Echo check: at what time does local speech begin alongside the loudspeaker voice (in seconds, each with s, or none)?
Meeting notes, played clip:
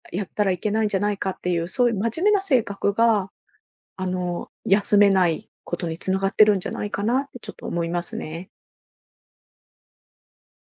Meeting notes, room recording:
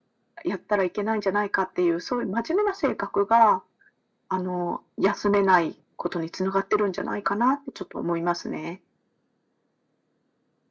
none